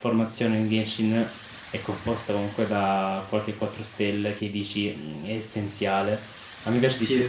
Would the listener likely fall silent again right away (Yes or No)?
Yes